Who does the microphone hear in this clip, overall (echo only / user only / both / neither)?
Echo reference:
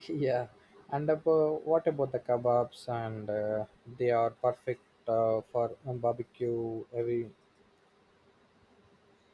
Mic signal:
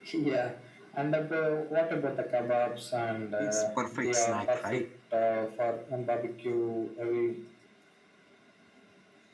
both